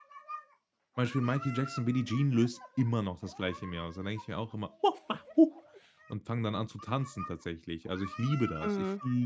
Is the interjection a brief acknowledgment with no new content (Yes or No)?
Yes